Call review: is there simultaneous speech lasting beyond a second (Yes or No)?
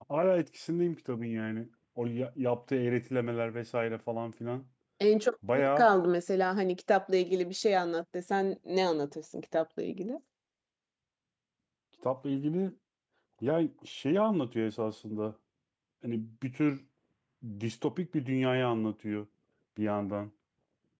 No